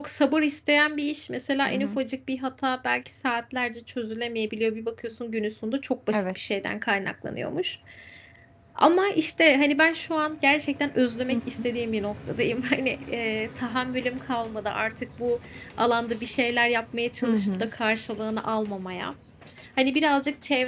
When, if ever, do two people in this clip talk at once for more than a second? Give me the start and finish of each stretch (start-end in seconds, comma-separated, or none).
none